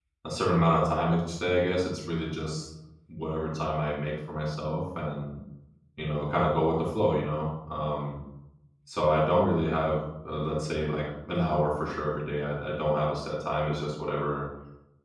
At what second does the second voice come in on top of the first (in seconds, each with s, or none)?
none